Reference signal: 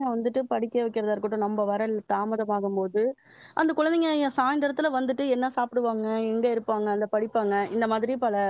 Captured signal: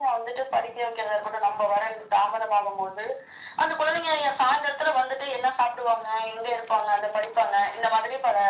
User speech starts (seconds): none

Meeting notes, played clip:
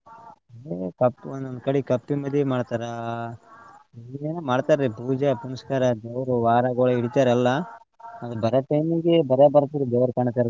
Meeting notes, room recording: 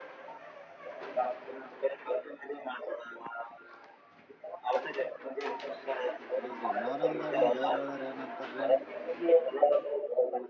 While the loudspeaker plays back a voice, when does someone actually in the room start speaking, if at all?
6.4 s

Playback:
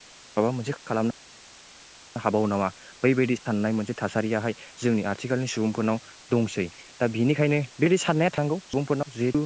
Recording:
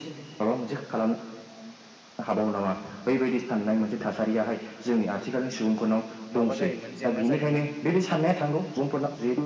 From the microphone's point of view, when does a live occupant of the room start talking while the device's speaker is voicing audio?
6.4 s

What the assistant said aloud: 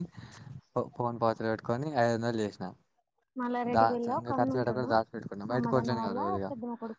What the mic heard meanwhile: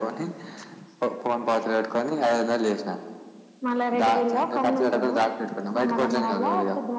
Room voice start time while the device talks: none

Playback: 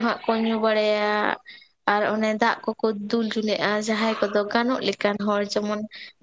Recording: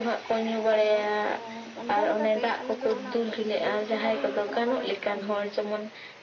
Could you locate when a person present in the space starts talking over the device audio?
0.8 s

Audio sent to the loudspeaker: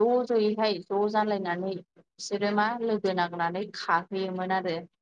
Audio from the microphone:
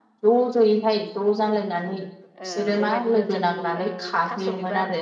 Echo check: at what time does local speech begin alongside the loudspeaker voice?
2.4 s

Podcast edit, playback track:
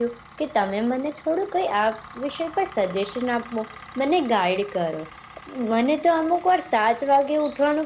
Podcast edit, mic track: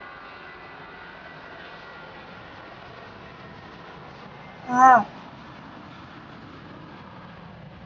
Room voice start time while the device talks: 4.7 s

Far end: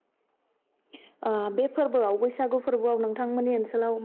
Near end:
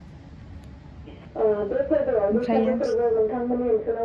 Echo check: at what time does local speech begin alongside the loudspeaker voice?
2.3 s

